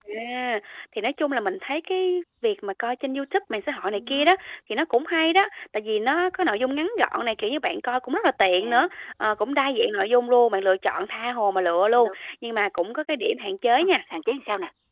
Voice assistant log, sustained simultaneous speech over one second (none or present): none